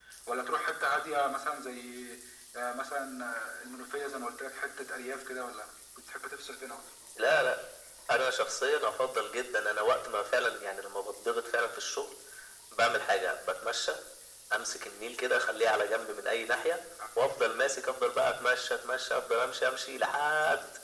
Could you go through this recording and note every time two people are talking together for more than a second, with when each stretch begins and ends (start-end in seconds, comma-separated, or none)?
none